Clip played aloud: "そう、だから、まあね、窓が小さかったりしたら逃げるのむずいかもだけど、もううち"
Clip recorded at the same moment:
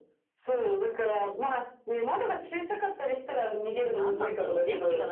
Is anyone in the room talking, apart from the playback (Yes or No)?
Yes